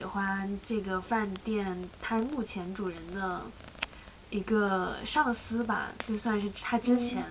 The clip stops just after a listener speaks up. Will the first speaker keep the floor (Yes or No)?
Yes